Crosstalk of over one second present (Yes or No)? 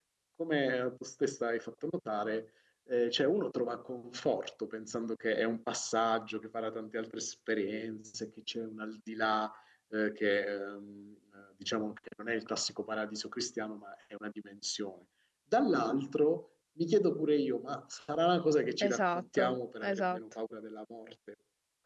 Yes